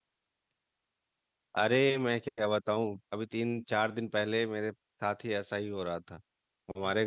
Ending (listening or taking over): listening